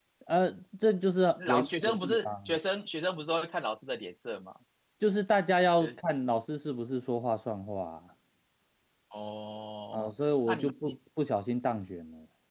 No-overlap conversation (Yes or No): No